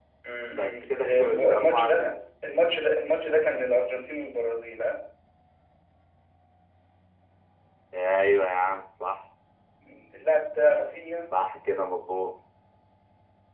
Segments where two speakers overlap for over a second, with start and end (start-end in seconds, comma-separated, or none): 0.5-2.0